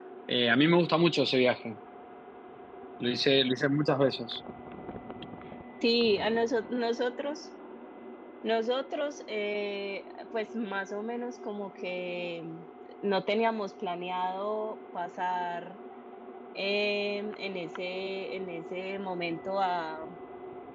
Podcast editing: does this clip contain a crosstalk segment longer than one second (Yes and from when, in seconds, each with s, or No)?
No